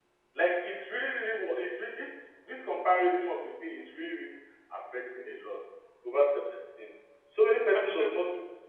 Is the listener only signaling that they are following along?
Yes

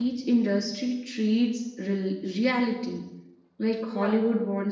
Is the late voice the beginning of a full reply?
No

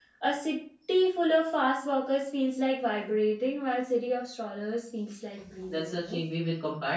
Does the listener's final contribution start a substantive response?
Yes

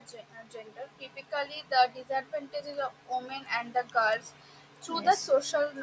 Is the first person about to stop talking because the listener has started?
No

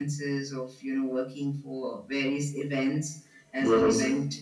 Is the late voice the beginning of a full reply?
No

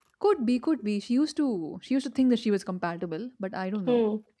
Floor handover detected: Yes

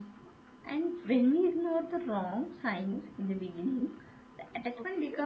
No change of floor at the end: Yes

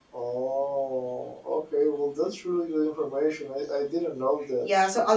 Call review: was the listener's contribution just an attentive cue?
No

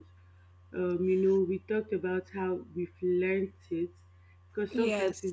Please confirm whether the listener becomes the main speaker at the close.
No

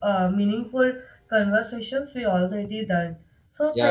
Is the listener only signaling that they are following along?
No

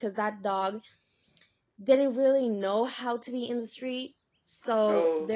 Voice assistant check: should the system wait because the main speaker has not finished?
Yes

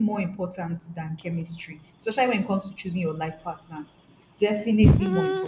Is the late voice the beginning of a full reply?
Yes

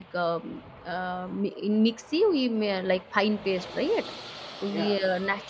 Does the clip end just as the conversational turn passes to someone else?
No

